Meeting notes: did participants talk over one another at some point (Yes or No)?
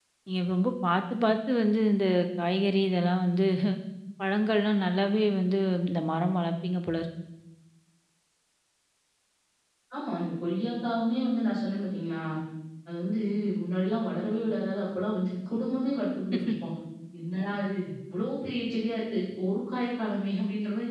No